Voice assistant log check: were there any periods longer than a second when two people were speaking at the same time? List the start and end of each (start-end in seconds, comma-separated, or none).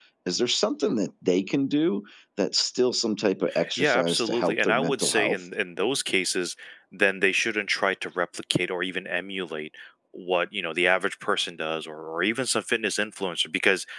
3.8-5.4